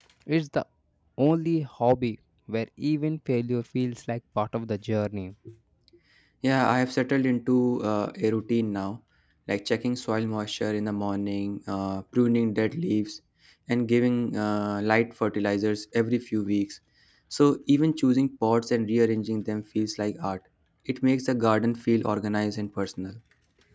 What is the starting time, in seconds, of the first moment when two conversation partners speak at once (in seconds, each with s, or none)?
none